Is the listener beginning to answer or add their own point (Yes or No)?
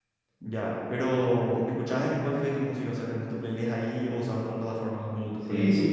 Yes